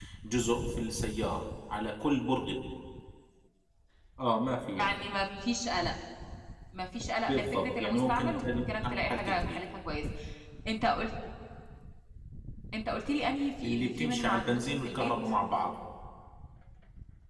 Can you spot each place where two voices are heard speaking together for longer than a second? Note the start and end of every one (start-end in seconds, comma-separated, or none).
7.2-9.7, 13.6-15.1